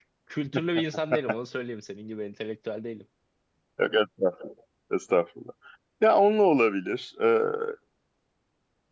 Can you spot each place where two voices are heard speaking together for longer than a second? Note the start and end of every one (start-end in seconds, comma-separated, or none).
none